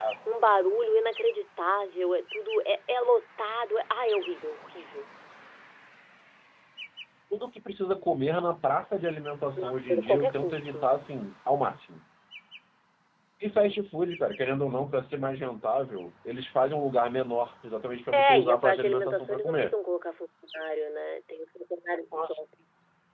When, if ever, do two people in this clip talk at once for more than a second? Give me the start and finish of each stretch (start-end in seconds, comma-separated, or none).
9.6-10.9, 18.3-19.7